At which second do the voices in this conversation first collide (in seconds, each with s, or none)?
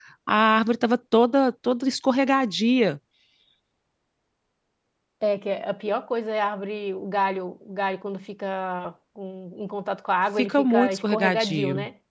10.4 s